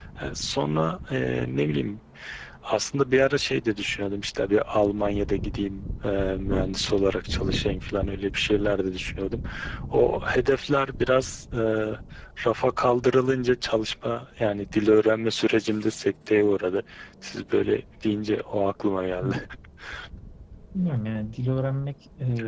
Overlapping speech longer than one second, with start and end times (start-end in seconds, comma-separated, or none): none